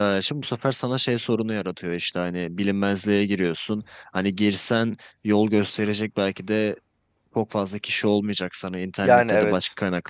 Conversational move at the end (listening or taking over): listening